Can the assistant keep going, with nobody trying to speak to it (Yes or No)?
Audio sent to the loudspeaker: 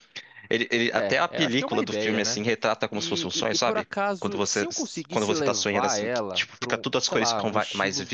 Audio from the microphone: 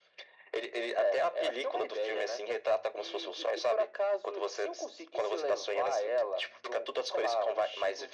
Yes